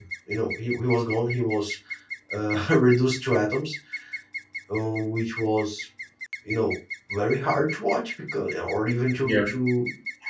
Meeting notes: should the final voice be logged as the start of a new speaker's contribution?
No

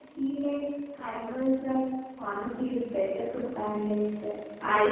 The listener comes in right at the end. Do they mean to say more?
Yes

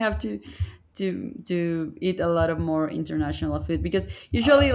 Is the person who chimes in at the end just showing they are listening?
Yes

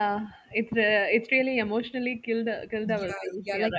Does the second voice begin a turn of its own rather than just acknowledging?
Yes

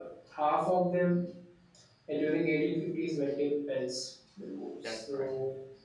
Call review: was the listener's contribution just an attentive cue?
Yes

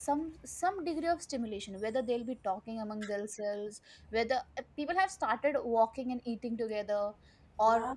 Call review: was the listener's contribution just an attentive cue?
Yes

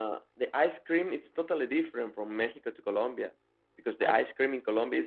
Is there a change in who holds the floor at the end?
No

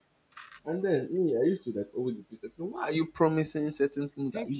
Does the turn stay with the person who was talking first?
No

